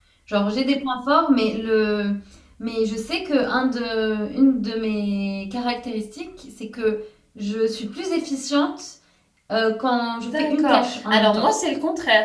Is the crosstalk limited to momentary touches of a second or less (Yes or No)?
No